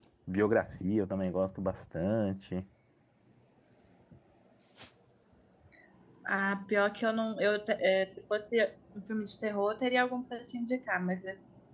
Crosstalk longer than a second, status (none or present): none